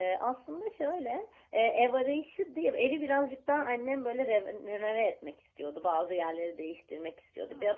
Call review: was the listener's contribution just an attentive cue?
Yes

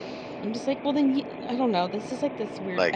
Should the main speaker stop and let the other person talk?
No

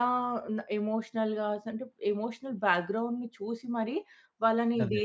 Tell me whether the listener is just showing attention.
Yes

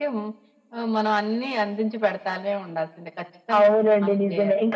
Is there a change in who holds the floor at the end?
Yes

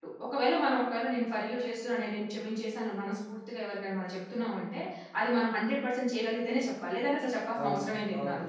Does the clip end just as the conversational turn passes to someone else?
Yes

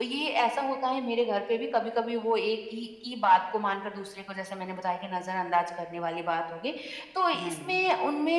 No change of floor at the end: Yes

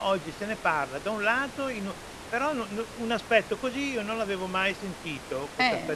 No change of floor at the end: Yes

